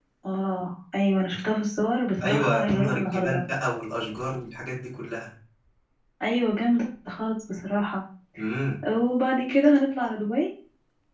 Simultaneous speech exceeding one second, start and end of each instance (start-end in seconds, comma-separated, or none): 2.2-3.4